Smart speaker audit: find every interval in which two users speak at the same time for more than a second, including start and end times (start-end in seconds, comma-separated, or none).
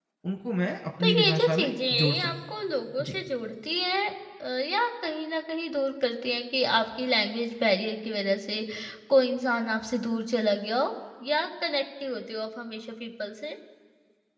1.0-2.3